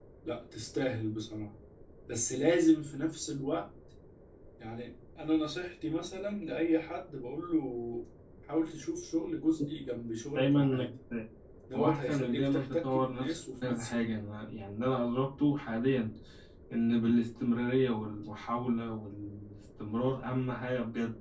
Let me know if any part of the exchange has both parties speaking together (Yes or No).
Yes